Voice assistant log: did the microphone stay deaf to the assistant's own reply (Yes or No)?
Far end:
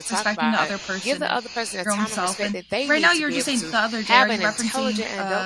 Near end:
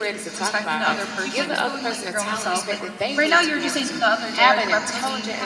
No